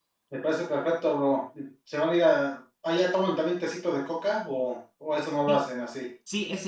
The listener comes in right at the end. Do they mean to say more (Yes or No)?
Yes